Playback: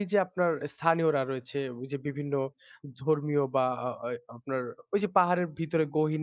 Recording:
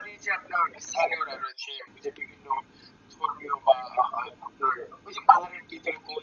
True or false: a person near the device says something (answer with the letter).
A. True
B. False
B